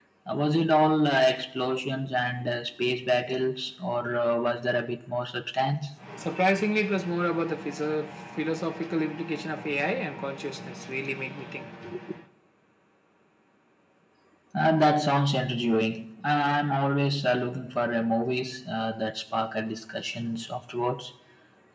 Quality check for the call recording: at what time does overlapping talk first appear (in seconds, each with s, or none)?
none